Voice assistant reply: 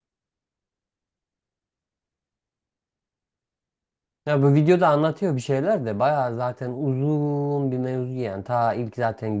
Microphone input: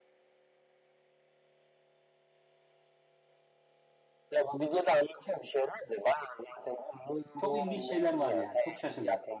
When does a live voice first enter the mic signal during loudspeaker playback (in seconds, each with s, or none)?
7.4 s